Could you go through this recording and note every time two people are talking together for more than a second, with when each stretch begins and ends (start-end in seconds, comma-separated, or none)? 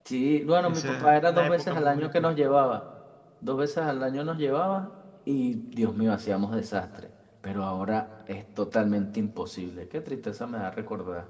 0.7-2.3